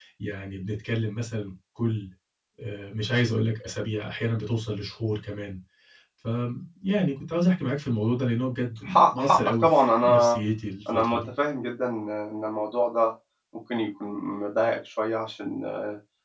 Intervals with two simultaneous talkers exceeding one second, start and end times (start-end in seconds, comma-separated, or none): 8.8-10.4